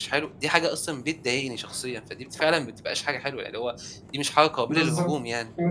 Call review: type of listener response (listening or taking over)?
taking over